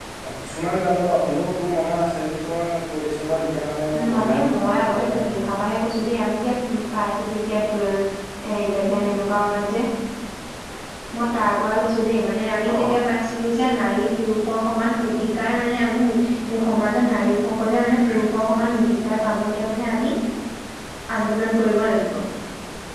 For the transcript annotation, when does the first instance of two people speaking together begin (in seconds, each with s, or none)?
3.9 s